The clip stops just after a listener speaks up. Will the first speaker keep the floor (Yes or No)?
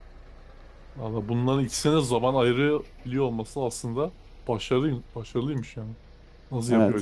No